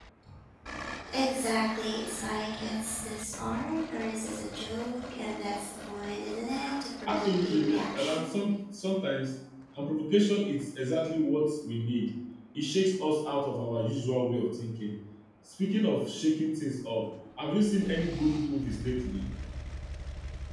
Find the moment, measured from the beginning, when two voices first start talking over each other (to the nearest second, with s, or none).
7 s